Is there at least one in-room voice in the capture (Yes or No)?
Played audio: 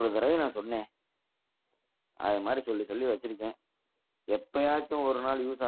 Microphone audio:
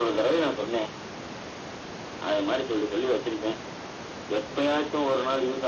No